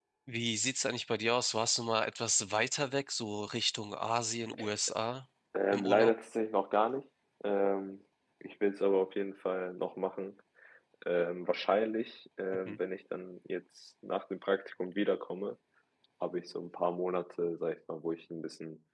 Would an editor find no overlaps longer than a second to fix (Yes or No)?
Yes